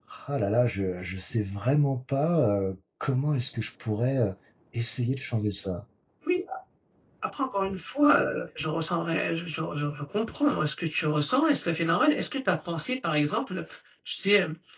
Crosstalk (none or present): none